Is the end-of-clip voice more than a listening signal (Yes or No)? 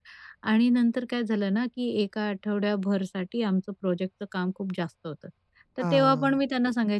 No